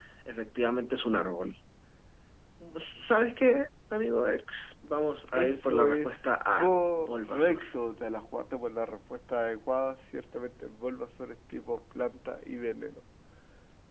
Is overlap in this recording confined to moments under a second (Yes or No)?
No